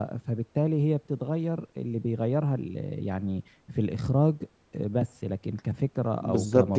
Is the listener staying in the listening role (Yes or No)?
No